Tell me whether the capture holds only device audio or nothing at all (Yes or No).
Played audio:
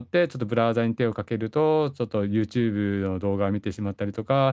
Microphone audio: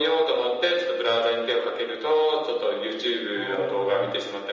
No